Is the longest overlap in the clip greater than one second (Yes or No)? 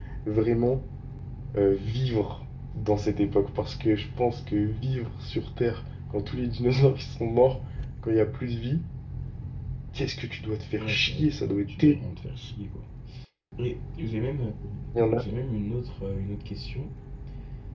Yes